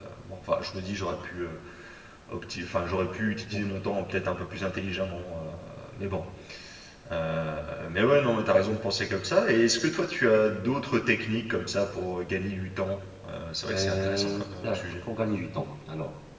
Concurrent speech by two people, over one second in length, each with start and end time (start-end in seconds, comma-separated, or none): 13.7-15.1